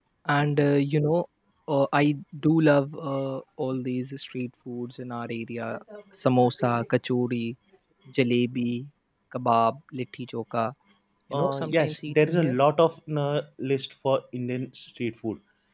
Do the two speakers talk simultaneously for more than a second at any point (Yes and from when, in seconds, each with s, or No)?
Yes, from 11.3 s